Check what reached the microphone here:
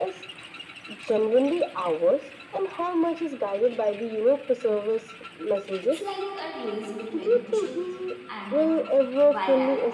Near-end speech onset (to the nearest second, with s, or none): 6 s